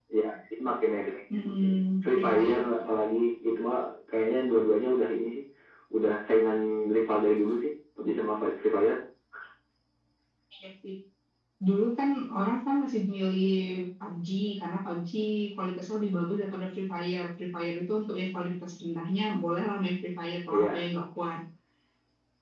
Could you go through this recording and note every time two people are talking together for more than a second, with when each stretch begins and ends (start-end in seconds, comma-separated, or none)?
1.3-2.6